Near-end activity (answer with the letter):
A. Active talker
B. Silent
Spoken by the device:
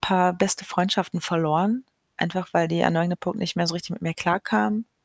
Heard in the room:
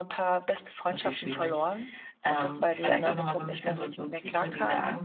A